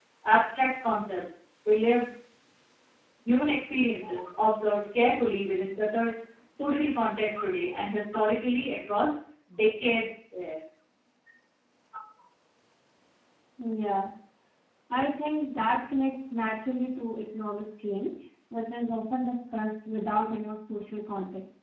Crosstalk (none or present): none